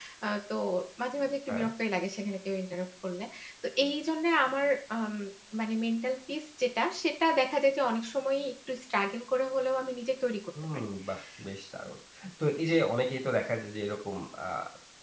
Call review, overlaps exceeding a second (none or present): none